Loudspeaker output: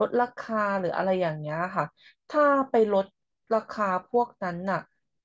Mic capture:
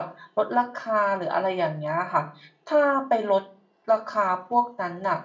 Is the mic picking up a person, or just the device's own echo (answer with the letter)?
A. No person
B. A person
A